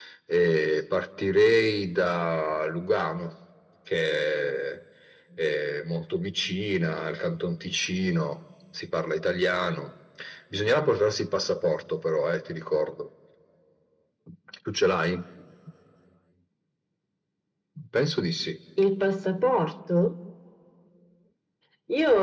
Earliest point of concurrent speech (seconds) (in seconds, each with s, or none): none